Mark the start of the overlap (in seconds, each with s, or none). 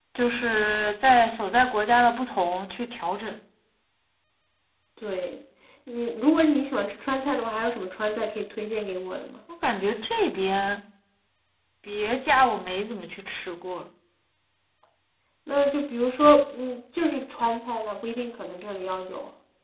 none